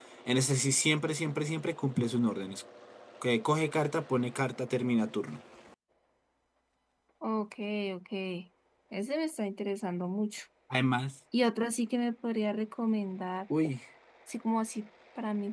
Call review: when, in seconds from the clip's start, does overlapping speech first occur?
none

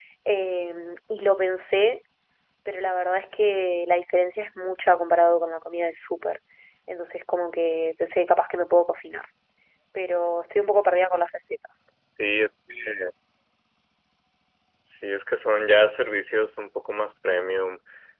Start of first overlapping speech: none

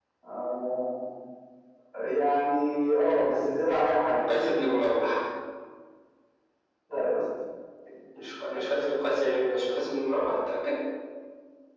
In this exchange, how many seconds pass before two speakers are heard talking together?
none

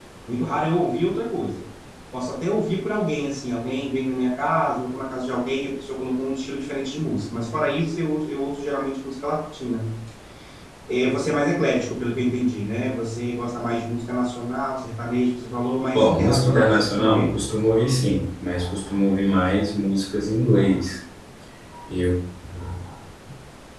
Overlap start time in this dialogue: 15.9 s

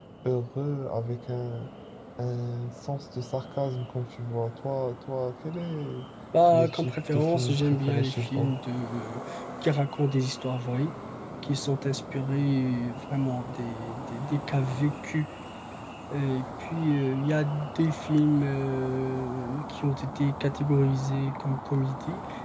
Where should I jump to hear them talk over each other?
6.5 s

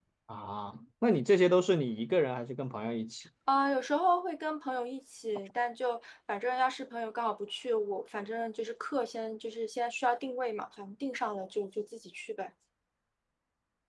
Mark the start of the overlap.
none

